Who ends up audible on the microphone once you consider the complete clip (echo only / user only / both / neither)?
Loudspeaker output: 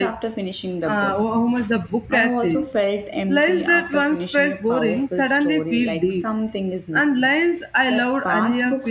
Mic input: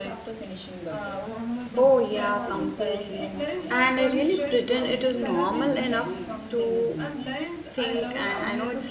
both